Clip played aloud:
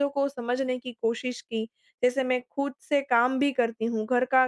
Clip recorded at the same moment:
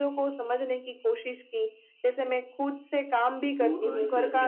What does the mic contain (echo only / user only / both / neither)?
both